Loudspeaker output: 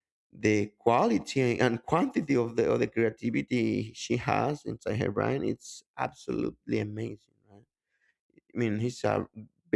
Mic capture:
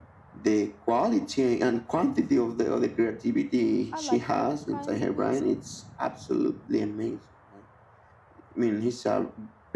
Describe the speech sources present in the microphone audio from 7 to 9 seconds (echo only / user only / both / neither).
echo only